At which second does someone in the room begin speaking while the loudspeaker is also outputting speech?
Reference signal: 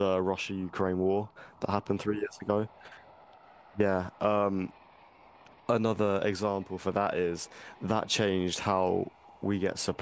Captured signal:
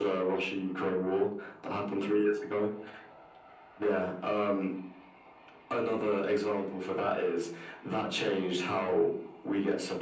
none

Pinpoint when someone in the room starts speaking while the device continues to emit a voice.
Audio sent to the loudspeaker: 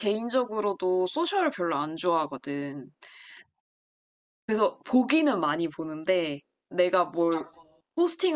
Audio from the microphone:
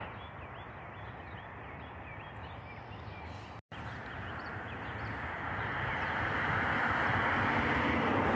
none

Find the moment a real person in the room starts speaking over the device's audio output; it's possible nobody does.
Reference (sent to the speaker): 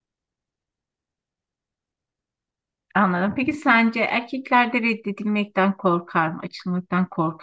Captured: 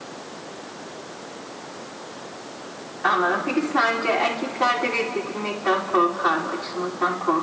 none

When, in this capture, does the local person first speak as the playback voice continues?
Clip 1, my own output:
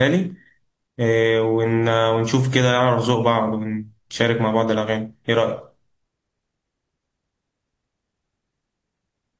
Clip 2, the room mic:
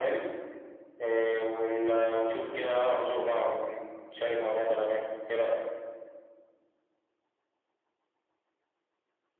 none

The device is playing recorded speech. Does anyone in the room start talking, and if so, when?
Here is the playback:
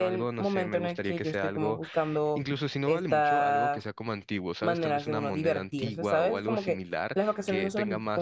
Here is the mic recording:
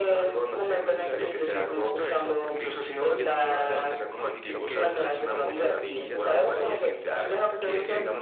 1.0 s

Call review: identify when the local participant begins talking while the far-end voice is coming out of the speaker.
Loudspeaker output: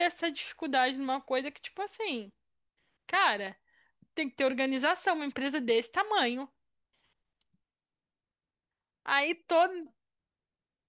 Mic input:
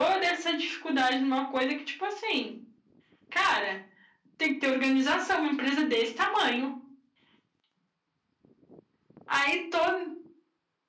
none

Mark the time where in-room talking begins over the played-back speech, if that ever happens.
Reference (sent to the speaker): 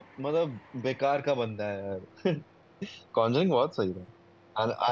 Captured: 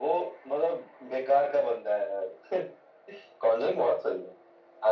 none

